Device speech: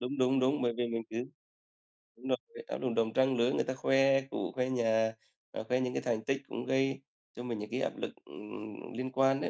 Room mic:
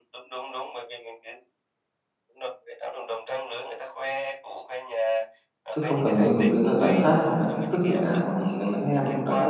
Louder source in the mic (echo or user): user